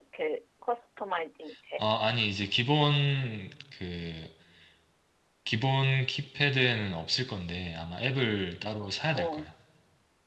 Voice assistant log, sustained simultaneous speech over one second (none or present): none